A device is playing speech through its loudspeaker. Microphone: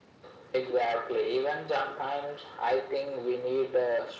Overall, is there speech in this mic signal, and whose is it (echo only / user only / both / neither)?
echo only